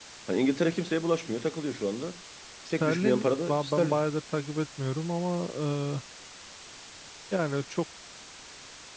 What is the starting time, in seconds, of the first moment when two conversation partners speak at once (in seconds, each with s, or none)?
2.8 s